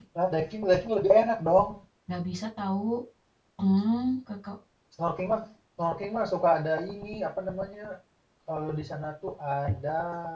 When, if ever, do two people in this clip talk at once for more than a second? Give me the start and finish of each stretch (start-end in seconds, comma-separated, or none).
none